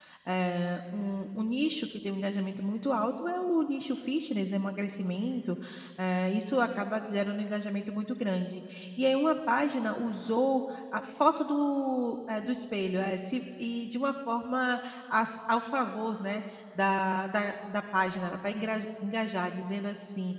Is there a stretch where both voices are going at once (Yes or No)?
No